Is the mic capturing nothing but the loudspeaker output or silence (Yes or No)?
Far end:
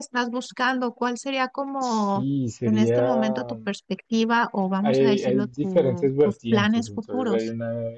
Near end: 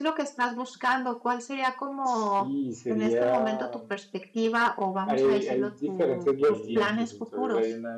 No